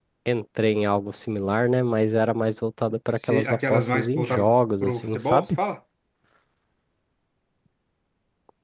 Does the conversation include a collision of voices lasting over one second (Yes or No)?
Yes